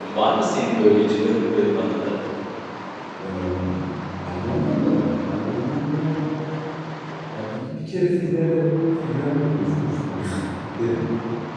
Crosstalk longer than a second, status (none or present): none